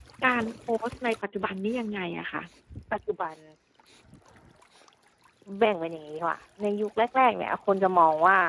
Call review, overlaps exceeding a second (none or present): none